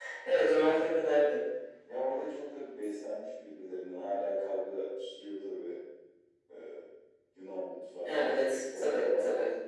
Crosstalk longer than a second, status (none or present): present